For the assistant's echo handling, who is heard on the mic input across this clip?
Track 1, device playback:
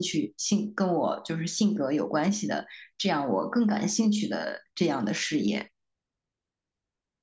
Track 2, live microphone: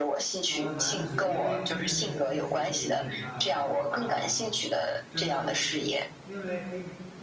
both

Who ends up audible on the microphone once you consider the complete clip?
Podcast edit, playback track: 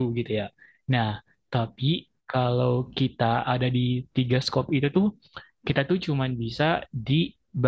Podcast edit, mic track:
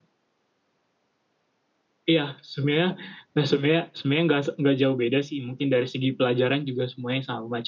user only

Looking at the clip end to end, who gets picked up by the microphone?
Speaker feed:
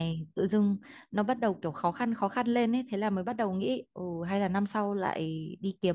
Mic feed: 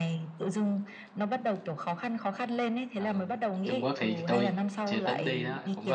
both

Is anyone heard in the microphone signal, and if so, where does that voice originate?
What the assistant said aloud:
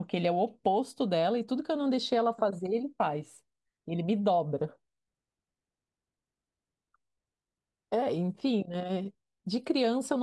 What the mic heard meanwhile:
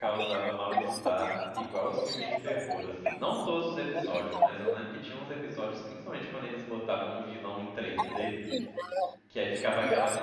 both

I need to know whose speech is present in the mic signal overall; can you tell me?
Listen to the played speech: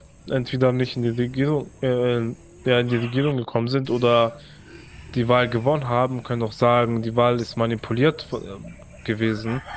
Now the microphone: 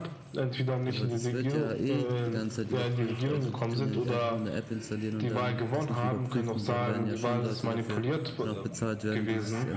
both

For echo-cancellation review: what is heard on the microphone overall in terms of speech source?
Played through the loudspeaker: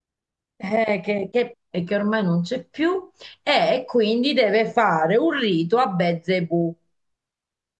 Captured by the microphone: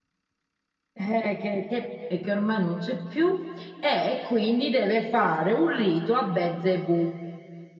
echo only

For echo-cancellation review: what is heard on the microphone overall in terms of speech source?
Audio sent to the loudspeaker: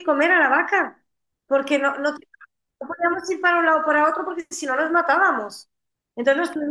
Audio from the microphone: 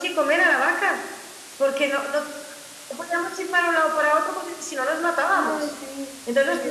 both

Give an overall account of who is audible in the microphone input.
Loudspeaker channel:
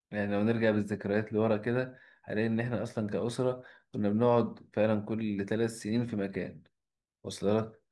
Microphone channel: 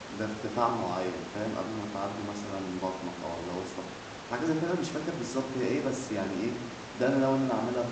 user only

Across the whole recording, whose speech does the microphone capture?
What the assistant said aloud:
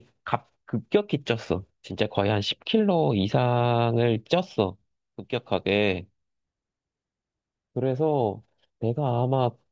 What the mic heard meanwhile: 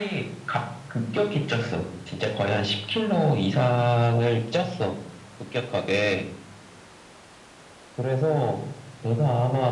echo only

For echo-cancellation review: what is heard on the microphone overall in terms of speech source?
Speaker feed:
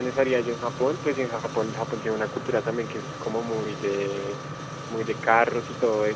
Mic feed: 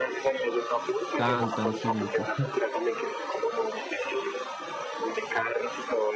both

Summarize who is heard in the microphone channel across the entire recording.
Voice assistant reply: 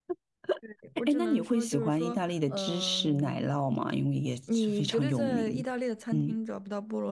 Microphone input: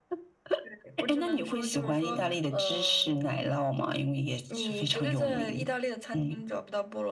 both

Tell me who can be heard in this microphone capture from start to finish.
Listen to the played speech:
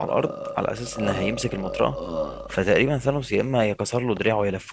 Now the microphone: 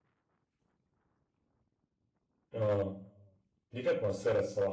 user only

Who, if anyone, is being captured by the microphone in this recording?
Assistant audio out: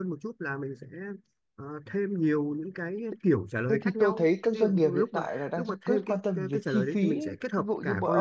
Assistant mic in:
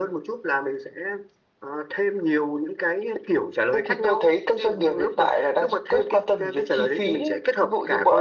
echo only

